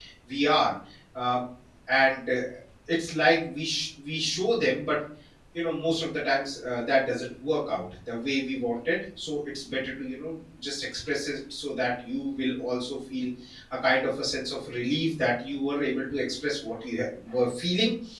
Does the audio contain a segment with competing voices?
No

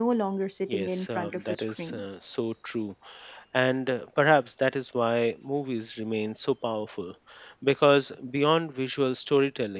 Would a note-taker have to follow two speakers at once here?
Yes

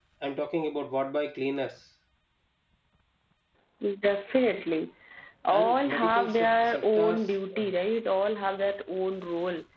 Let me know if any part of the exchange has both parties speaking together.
Yes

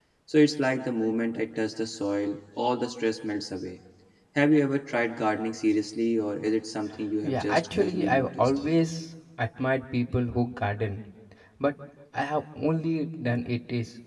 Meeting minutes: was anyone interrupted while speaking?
Yes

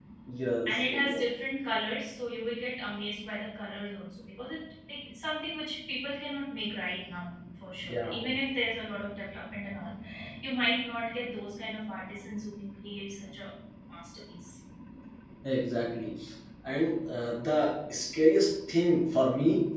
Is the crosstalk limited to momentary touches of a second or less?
Yes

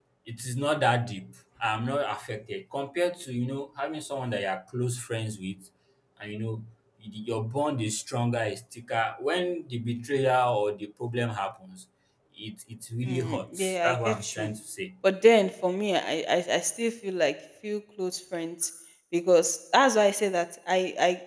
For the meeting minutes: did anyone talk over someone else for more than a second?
Yes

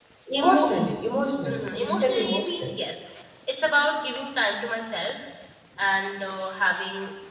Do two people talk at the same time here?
Yes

